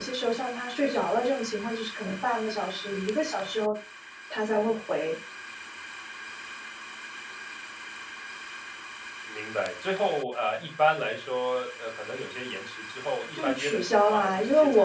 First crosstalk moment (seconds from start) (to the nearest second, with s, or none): 13 s